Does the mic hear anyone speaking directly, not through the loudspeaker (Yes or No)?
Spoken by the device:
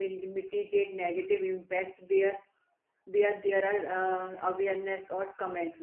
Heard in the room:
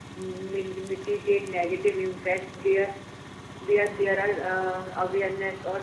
No